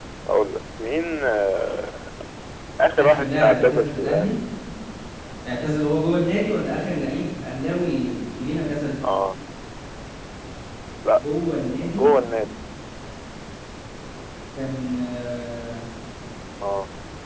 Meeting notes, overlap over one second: present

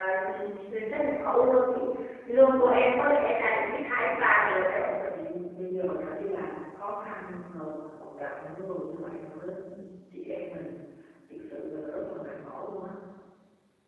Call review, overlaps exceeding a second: none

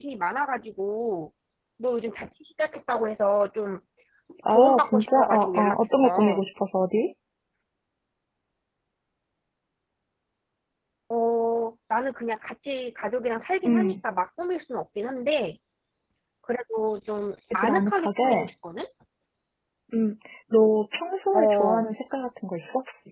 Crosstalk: present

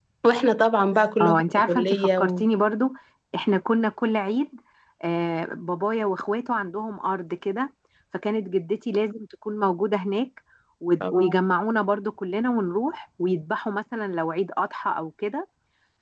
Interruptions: present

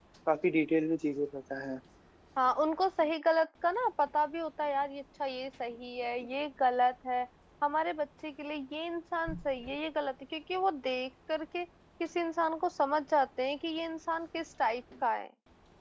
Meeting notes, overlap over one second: none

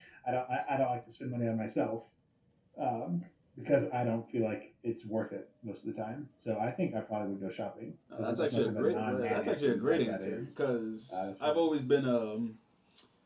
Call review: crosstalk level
present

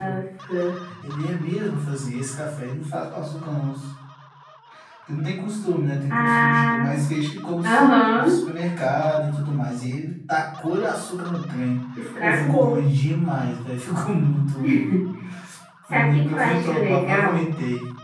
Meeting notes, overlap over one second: present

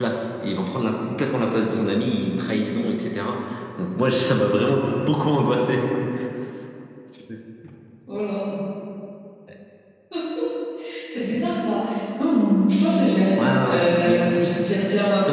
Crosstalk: present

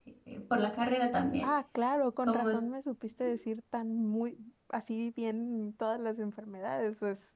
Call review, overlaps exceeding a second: none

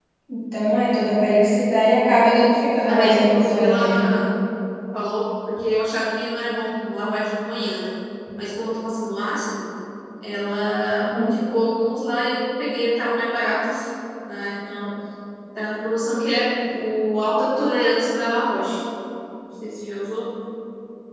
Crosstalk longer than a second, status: present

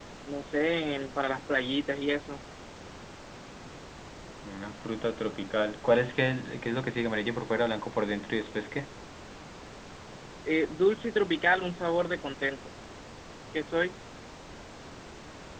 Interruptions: none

